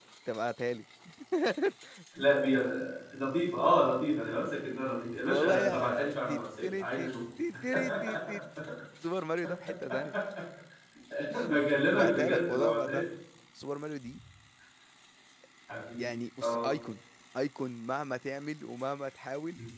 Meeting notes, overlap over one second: present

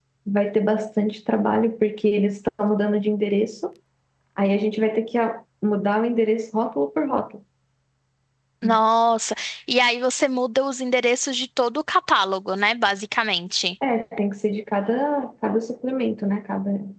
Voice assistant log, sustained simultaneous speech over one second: none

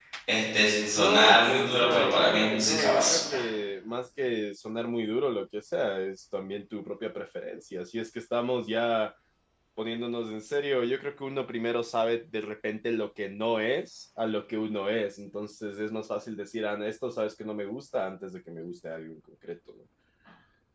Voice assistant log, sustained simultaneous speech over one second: present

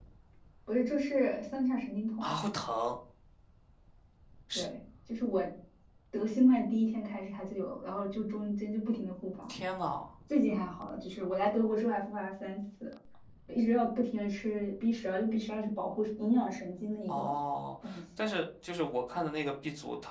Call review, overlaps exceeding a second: none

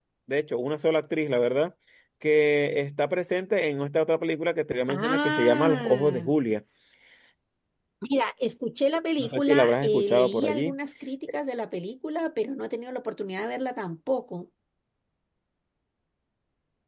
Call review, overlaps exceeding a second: present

